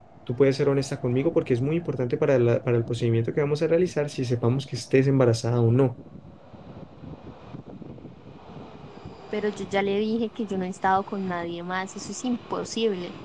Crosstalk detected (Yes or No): No